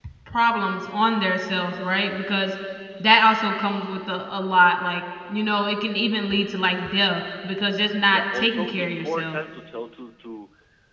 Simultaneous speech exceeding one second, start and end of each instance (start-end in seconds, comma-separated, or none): 8.1-9.4